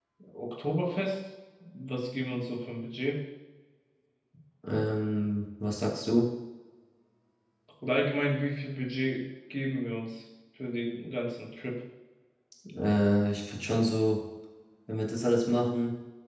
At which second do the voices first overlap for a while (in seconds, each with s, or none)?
none